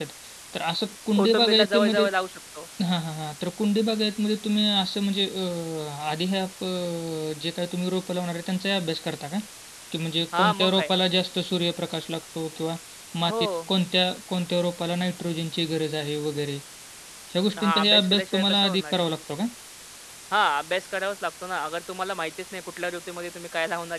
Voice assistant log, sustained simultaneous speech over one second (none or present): present